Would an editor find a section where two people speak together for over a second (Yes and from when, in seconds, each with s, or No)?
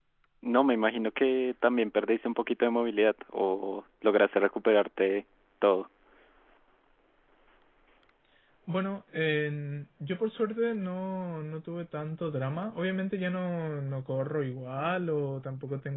No